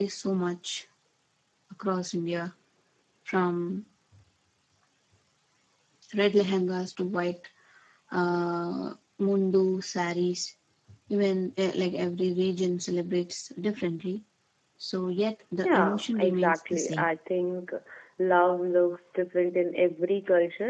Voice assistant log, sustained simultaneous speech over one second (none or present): present